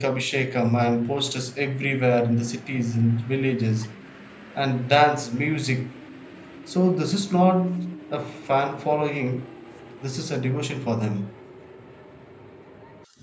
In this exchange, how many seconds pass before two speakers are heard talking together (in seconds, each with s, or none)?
none